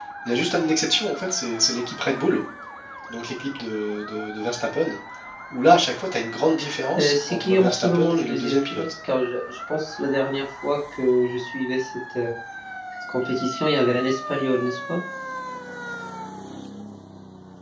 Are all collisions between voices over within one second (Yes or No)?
No